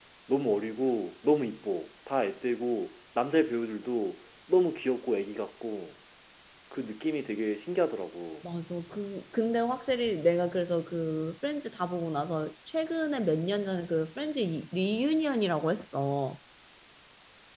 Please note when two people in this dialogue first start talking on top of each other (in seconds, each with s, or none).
none